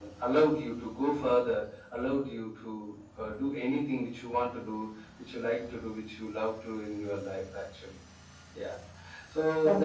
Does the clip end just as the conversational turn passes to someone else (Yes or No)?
No